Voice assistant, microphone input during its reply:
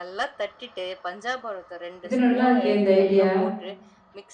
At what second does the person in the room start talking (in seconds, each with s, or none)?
2.0 s